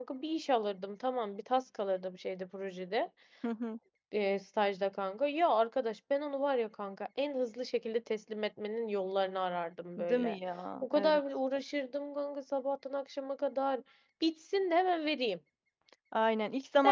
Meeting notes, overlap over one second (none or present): none